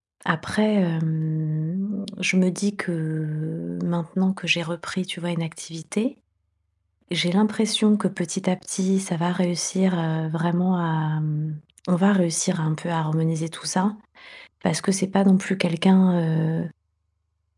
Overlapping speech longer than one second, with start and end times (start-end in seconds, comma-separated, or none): none